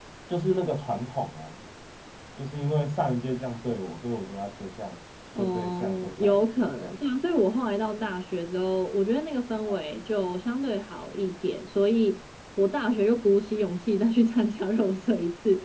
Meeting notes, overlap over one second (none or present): present